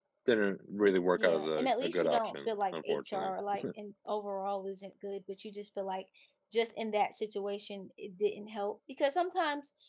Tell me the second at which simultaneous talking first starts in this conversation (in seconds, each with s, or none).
1.2 s